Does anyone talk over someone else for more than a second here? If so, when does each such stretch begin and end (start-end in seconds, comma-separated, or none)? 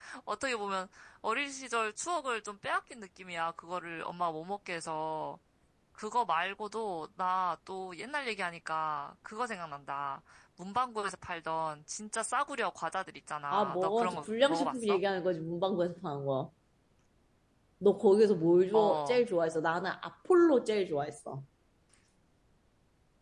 13.5-15.0